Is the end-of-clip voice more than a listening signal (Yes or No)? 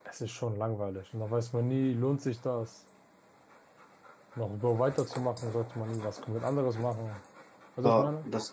Yes